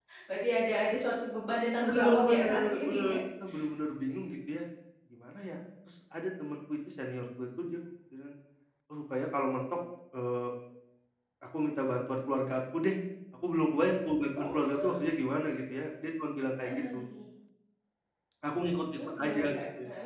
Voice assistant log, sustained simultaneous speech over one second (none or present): present